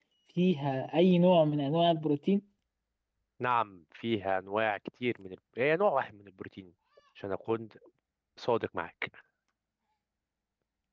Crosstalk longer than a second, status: none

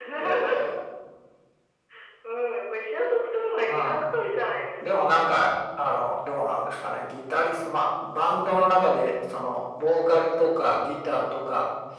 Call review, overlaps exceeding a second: none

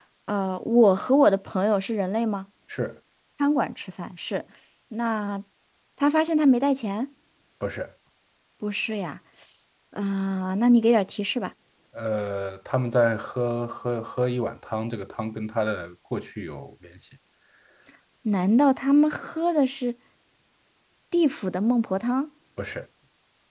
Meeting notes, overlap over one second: none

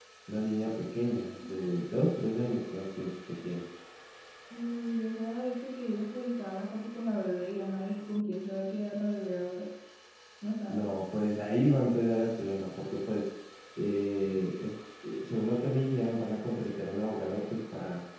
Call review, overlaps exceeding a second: none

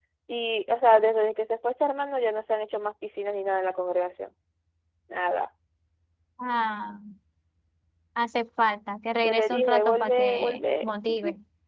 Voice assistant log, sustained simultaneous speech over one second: present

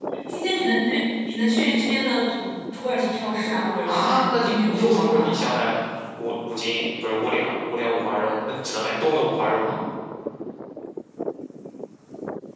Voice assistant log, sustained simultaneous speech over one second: present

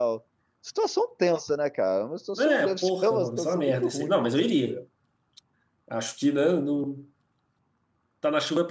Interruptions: present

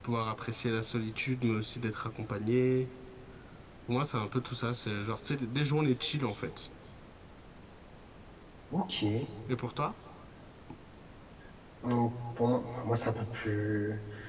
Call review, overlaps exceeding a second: none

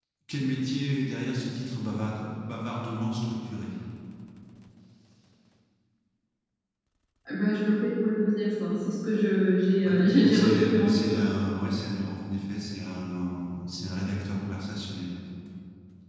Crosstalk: present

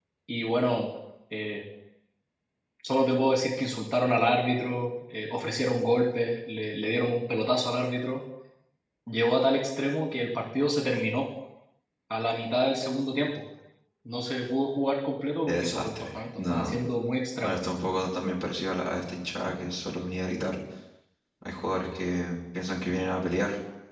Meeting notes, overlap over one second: present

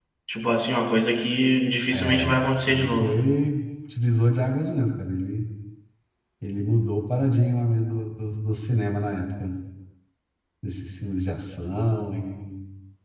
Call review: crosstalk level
present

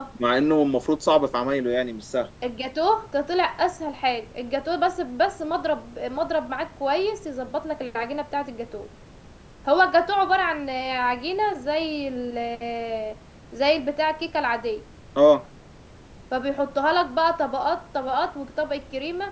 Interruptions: none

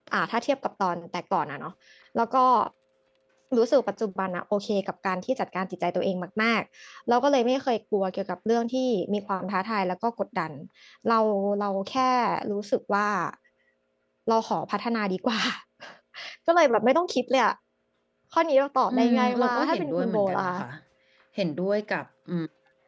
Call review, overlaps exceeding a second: present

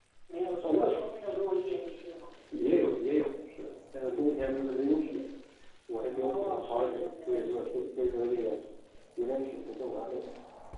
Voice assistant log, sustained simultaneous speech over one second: present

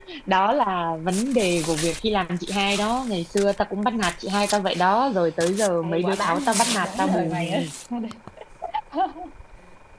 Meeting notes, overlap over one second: present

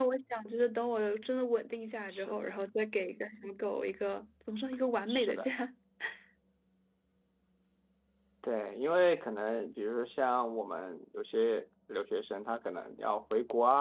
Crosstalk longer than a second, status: none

